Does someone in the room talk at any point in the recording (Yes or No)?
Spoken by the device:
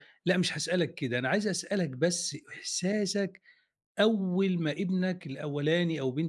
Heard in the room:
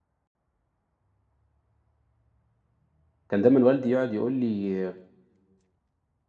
Yes